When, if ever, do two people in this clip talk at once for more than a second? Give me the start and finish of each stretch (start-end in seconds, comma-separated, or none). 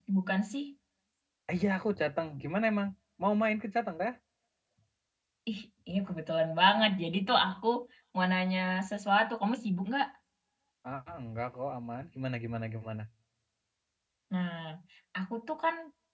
none